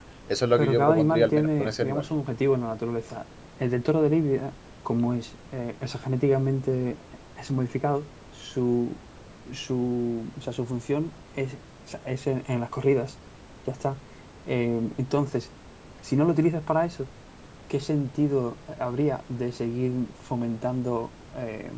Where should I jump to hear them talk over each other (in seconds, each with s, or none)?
0.6 s